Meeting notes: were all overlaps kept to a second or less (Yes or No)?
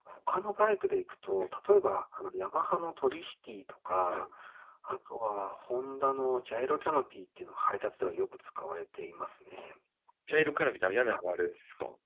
Yes